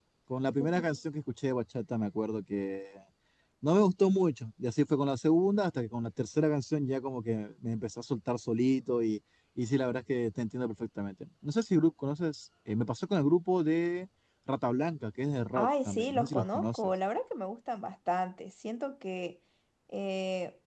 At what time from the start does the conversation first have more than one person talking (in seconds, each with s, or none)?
15.6 s